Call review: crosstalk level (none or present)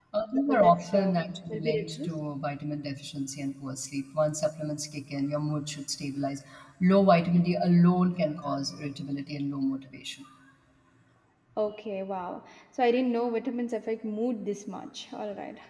present